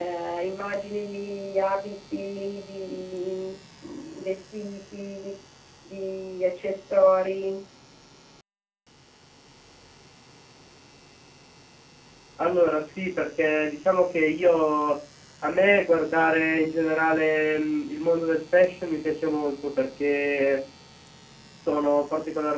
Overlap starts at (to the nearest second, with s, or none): none